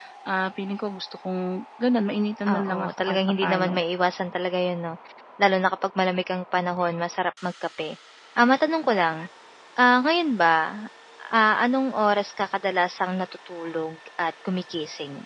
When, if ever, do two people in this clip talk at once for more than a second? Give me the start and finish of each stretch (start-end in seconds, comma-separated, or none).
2.5-3.8